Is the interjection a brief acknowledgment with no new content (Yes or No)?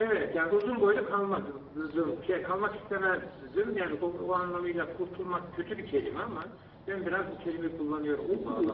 No